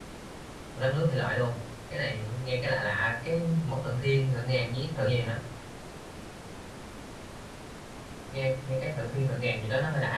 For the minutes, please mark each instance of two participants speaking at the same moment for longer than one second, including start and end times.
none

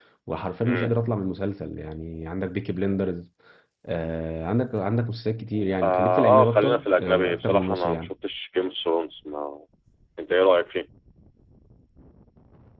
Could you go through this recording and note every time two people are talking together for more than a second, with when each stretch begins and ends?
5.8-8.1

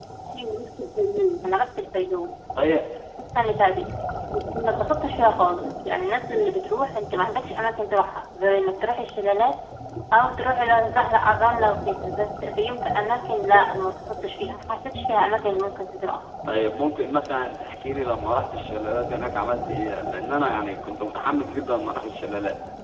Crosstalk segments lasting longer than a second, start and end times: none

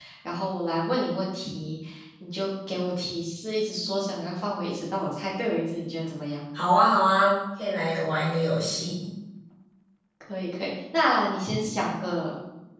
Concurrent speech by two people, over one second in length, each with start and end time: none

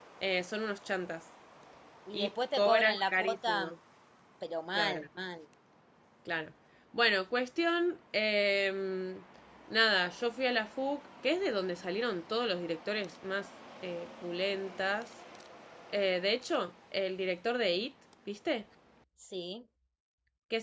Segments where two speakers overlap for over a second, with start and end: 2.1-3.7

